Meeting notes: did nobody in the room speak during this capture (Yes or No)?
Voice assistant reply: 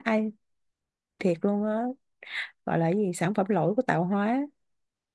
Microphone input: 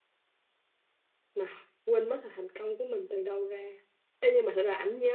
No